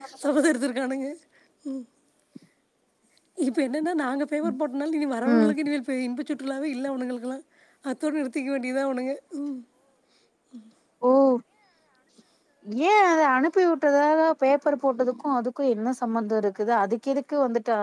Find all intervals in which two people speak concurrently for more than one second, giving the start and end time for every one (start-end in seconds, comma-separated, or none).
none